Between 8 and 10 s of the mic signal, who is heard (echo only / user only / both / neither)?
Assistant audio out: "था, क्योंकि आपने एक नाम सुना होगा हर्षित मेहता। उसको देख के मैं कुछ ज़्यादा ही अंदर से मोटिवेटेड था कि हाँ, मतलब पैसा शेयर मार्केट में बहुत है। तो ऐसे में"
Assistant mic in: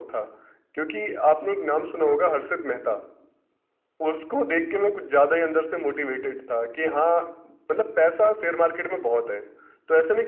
echo only